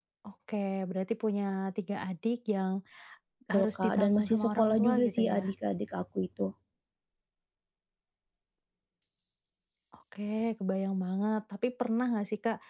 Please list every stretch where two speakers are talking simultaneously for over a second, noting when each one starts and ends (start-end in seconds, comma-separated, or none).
3.5-5.4